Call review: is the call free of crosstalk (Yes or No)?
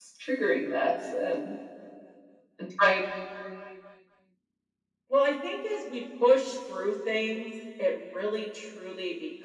Yes